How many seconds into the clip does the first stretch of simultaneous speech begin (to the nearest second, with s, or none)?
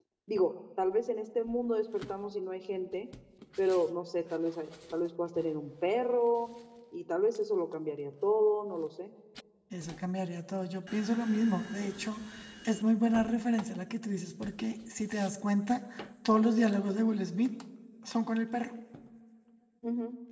none